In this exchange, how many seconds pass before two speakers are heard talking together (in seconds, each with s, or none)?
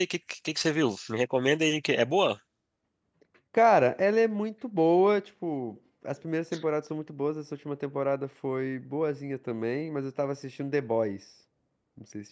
none